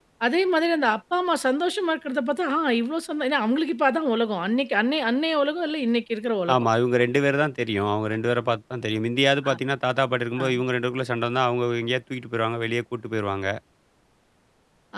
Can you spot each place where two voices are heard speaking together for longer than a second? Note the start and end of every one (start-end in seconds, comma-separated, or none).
none